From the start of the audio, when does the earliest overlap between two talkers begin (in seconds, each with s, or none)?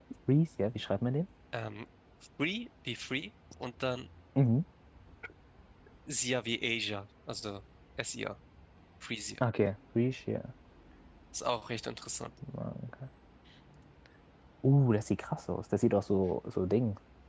none